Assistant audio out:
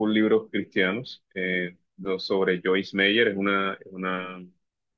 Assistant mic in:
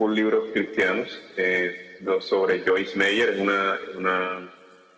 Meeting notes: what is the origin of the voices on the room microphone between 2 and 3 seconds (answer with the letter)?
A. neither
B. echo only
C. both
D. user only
B